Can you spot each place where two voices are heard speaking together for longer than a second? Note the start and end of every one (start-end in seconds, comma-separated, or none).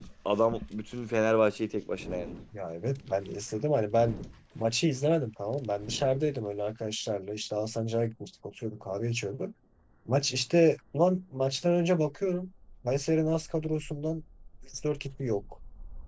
none